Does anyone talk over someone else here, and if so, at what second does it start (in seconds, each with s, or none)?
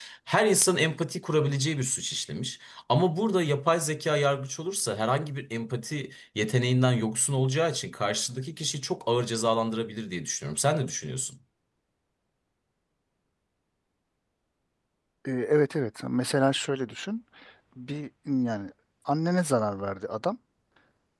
none